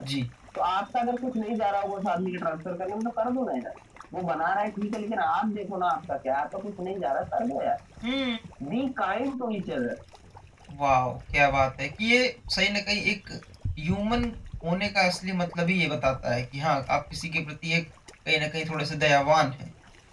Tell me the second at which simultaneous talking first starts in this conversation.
none

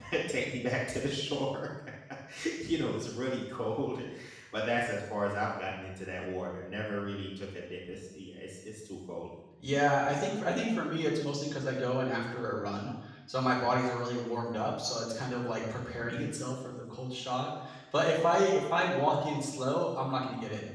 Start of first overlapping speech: none

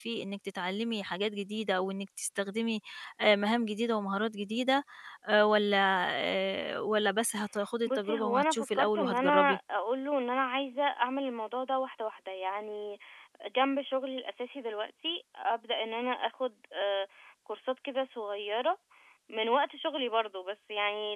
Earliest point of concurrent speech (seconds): 7.8 s

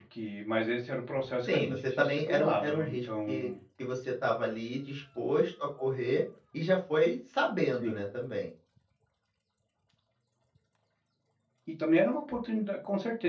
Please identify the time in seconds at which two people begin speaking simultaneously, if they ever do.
1.4 s

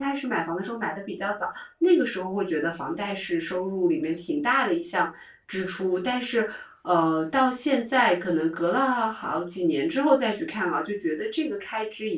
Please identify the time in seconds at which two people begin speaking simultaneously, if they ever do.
none

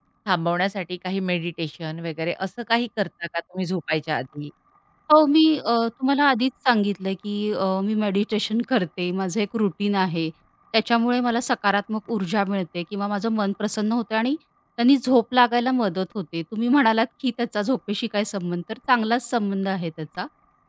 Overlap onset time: none

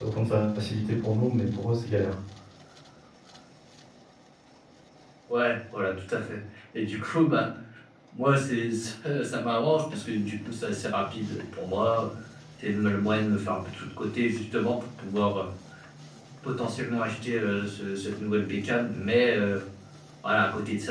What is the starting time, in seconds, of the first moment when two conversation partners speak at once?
none

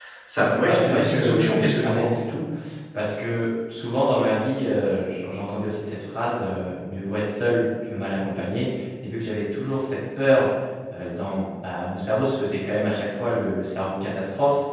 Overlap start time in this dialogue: 0.7 s

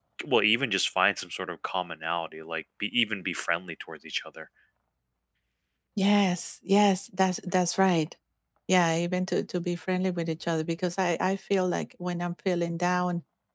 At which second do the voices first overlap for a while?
none

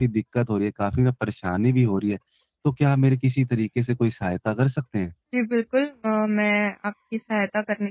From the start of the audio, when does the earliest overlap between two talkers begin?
none

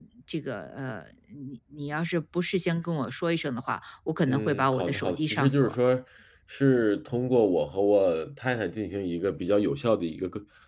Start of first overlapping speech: 4.2 s

